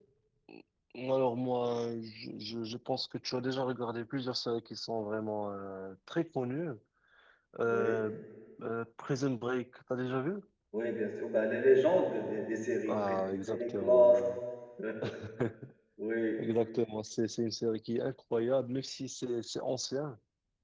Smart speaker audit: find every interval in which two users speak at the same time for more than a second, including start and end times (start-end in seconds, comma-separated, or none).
12.9-14.2